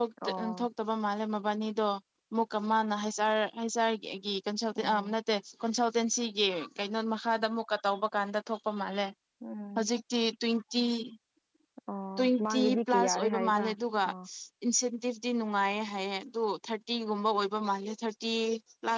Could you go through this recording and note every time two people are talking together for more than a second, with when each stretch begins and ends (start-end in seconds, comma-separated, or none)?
12.2-13.7